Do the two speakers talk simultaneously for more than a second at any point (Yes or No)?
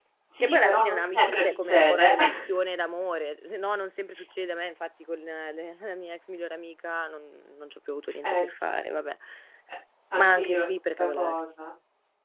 Yes